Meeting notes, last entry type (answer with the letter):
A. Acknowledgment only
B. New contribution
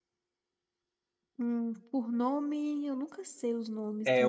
B